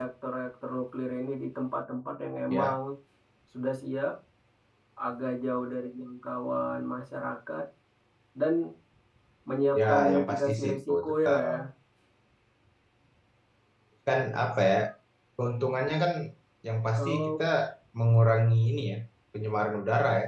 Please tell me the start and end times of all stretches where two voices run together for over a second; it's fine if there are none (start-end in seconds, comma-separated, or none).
9.8-11.6